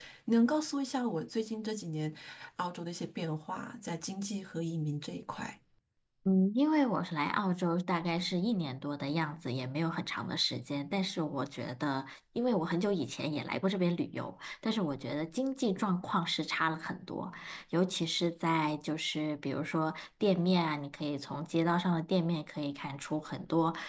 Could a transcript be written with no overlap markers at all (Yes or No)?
Yes